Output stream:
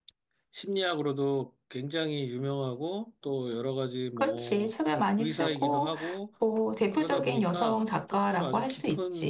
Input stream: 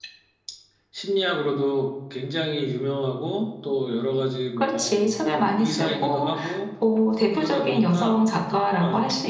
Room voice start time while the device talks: none

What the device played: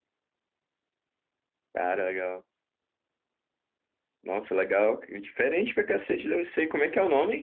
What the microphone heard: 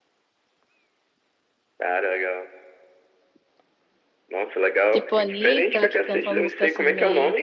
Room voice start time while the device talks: 4.9 s

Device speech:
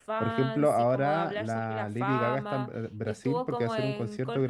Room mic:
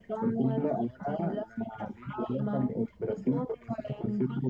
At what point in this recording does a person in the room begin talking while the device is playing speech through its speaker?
none

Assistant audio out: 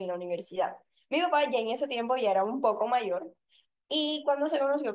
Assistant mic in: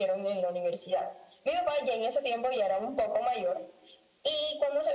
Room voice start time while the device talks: none

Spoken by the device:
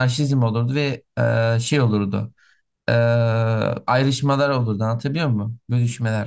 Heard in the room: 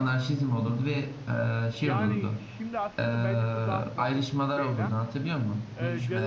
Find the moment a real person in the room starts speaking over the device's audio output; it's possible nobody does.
1.7 s

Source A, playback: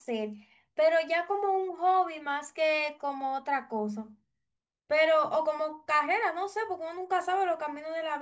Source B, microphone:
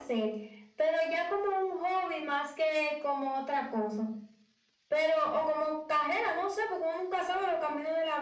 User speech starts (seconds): none

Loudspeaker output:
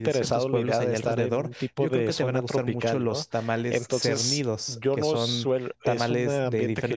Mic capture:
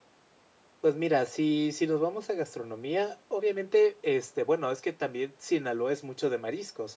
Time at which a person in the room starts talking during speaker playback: 0.8 s

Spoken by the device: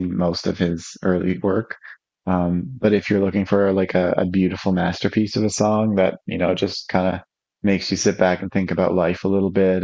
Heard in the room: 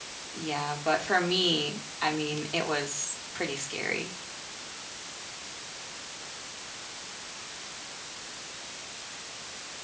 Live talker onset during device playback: 0.3 s

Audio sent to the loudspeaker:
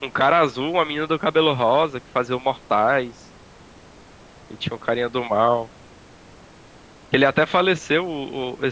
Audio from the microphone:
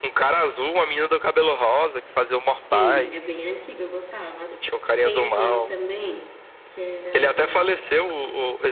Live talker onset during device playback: 2.7 s

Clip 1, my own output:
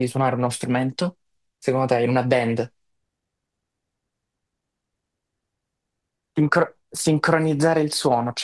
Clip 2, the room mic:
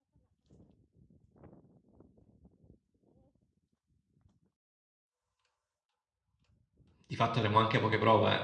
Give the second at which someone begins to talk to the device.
7.1 s

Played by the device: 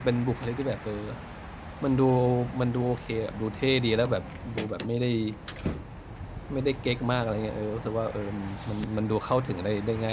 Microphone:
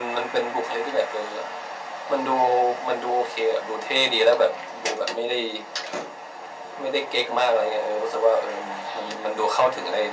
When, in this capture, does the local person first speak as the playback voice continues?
none

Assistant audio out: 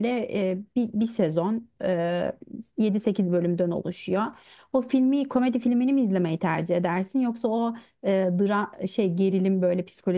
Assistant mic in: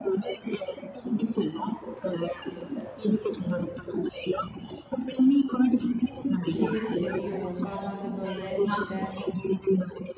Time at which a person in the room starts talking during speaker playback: 6.4 s

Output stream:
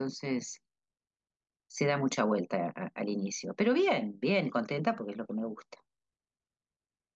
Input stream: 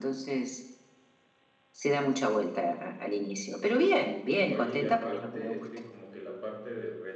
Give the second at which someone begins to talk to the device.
4.5 s

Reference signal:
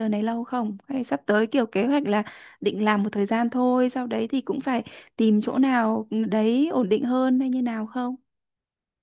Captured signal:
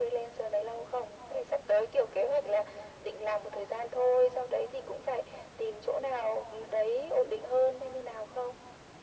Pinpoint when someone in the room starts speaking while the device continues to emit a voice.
none

